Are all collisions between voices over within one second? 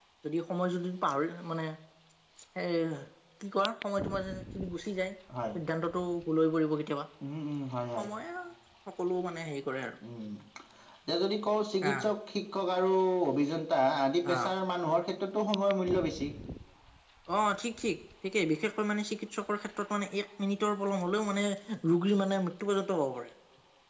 Yes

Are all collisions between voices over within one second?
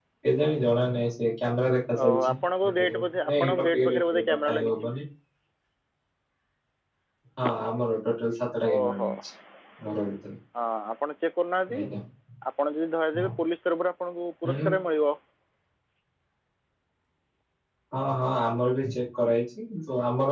No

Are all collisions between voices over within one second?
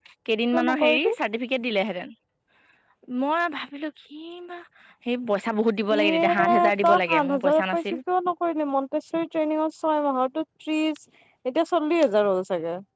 No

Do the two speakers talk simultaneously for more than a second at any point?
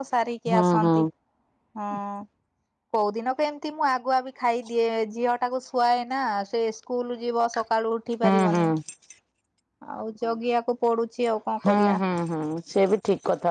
No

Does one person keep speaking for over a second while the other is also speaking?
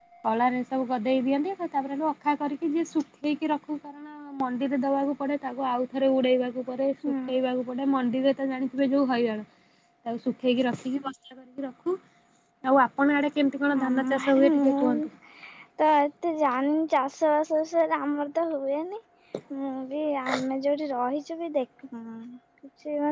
Yes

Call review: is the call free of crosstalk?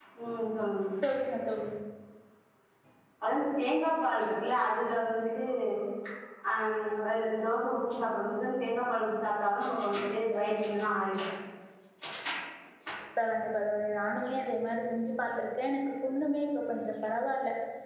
Yes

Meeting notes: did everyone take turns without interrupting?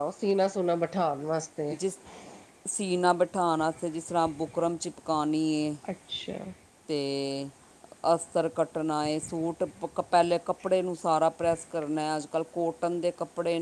Yes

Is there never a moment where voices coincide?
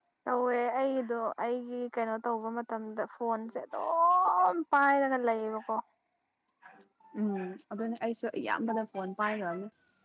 Yes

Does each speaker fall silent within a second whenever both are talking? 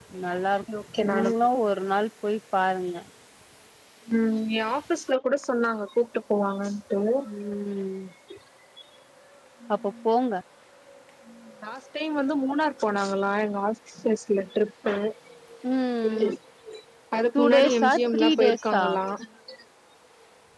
No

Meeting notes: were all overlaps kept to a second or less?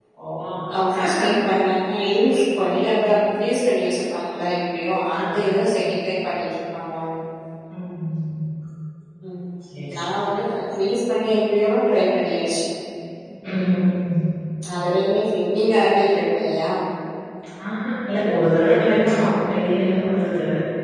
Yes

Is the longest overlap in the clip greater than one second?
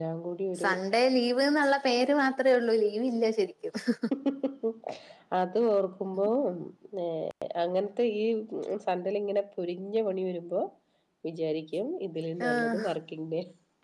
No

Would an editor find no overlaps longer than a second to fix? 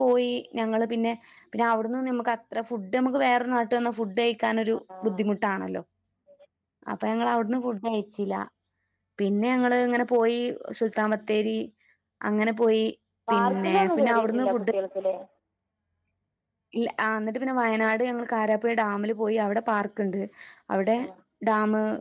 No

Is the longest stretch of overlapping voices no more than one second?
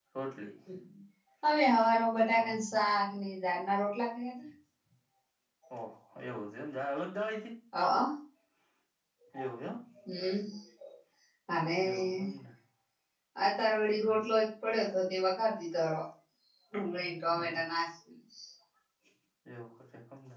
Yes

